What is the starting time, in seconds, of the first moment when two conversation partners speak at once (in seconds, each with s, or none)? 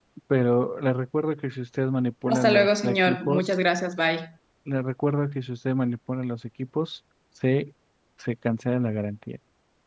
2.3 s